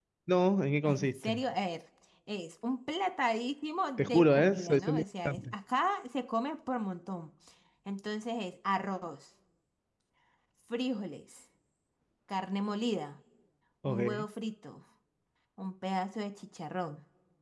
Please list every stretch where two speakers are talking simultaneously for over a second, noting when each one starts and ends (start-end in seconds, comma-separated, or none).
4.0-5.5